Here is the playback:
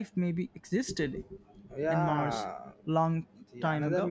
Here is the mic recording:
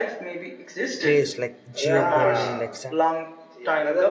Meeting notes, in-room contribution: present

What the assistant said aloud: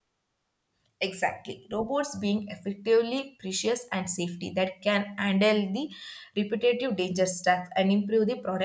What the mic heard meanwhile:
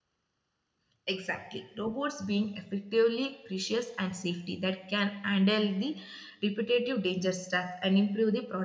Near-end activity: none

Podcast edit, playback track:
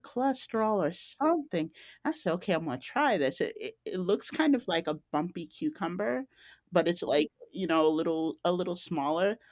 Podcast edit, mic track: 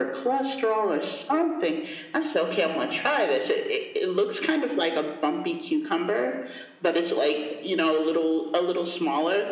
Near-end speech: none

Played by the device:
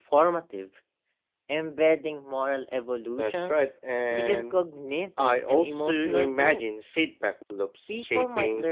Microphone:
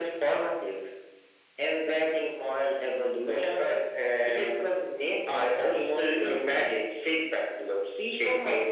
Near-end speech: none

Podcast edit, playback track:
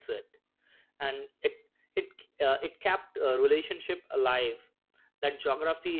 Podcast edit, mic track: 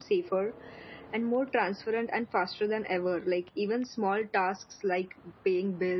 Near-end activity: present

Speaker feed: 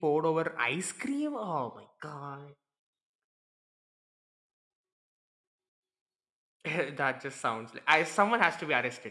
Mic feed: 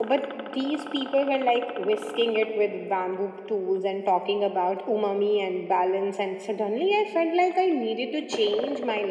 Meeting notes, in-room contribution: present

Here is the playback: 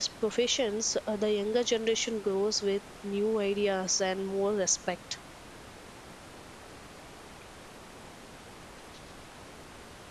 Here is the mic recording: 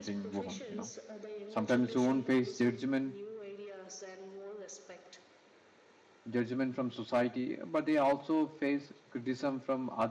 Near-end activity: present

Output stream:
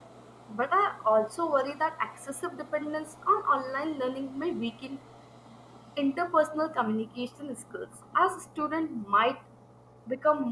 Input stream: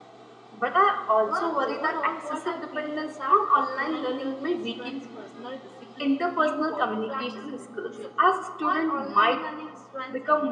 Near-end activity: present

